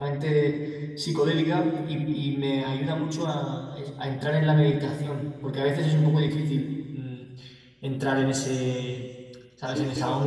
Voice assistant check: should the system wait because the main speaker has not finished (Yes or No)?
No